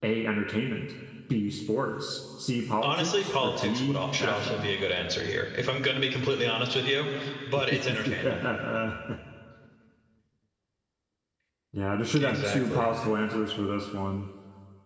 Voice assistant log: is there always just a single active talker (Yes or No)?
No